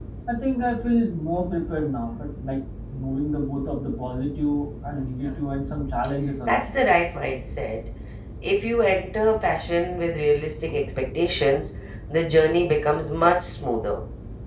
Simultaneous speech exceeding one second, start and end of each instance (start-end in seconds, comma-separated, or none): none